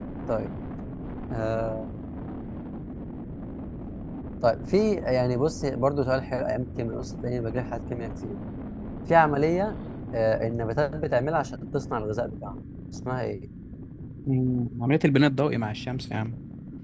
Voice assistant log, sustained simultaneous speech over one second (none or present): none